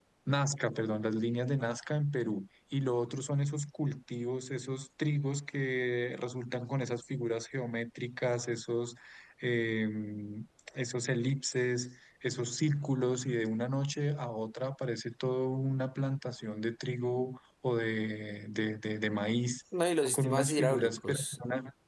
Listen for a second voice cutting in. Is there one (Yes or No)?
Yes